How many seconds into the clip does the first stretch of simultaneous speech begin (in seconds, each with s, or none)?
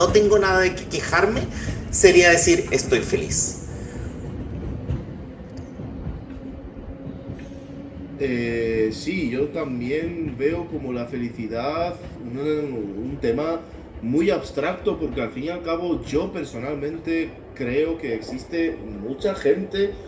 none